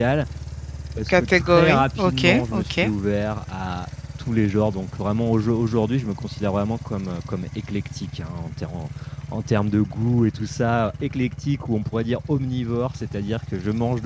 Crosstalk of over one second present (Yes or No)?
Yes